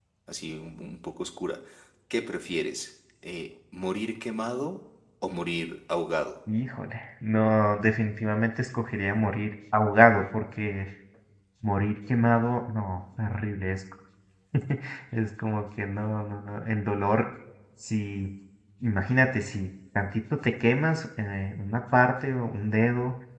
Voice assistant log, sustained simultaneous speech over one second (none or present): none